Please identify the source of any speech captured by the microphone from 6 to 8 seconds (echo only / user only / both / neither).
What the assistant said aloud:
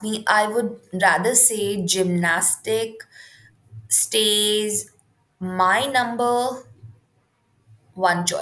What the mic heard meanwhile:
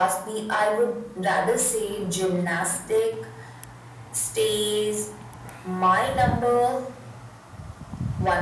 echo only